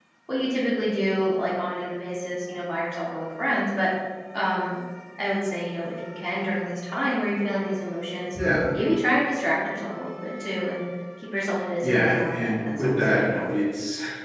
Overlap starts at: 12 s

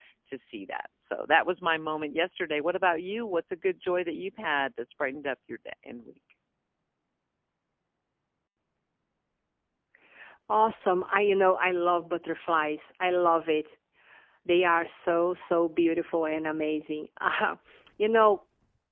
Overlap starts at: none

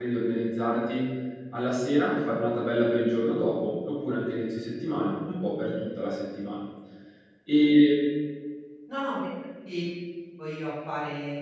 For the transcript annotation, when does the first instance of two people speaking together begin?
none

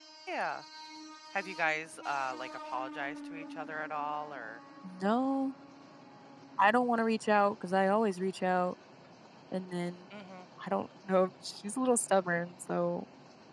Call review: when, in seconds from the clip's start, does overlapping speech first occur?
none

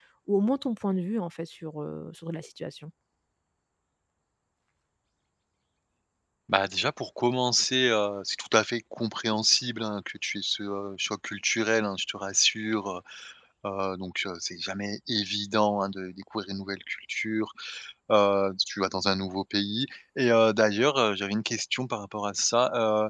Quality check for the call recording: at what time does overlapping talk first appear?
none

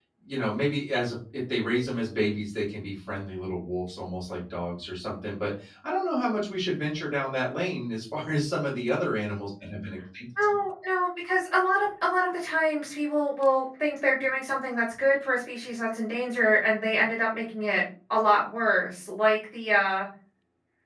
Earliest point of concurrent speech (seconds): none

